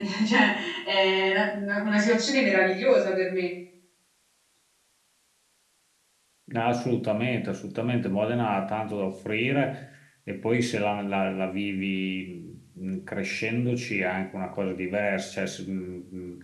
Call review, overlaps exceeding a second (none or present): none